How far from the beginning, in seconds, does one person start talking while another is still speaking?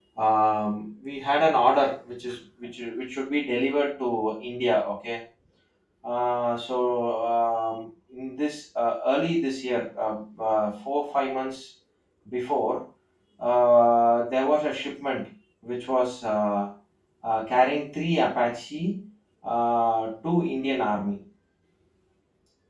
none

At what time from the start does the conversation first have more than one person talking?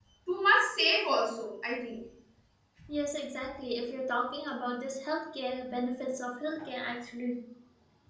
none

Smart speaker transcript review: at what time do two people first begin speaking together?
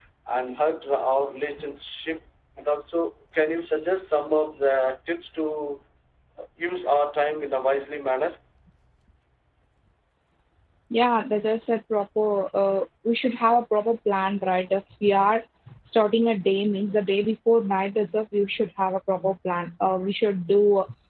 none

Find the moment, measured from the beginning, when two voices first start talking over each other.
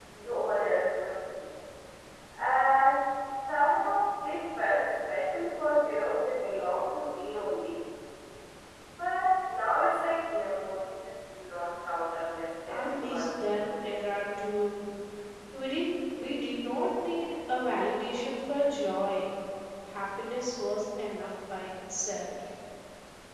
12.7 s

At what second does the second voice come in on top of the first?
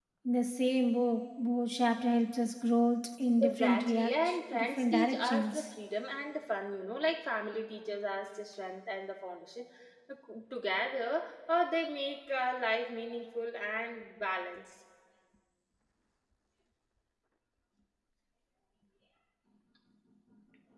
3.4 s

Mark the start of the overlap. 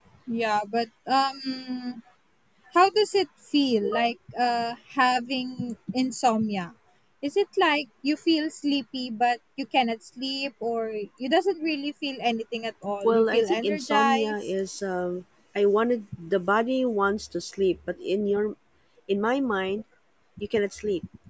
13.0 s

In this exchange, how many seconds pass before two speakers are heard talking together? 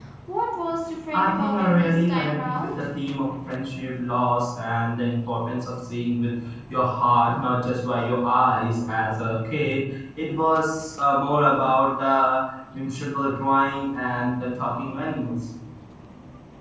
1.1 s

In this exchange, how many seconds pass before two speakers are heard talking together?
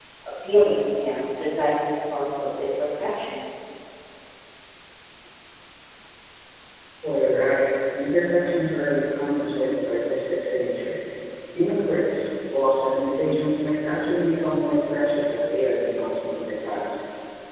none

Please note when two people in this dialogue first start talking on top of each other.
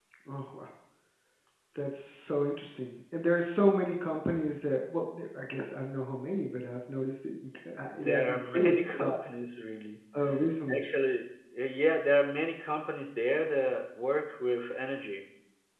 7.9 s

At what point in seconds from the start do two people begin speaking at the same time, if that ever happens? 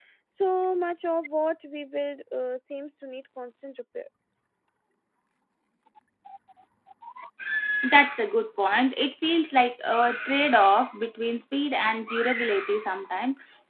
none

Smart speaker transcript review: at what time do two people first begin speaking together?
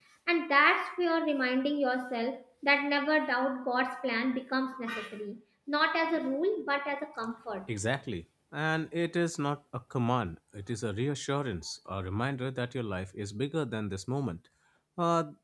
none

